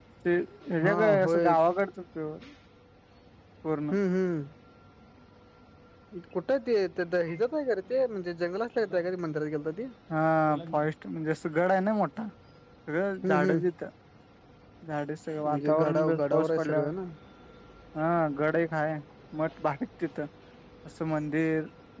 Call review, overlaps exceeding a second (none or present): present